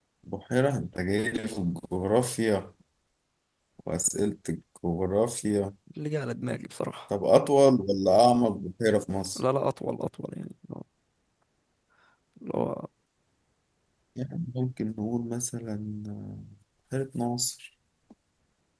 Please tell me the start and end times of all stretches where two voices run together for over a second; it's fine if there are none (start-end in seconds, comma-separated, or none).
none